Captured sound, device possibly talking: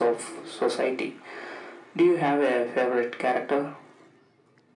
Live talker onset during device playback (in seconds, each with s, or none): none